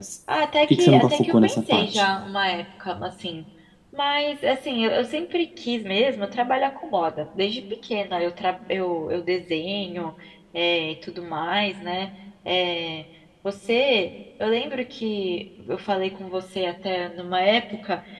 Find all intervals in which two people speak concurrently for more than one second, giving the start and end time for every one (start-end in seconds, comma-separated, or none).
0.6-2.0